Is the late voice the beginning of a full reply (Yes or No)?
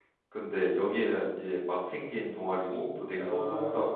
No